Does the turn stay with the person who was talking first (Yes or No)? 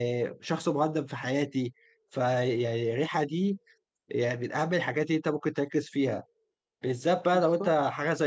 Yes